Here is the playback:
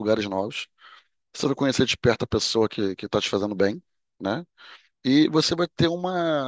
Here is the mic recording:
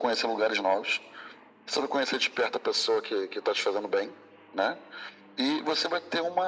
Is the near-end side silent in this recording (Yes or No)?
Yes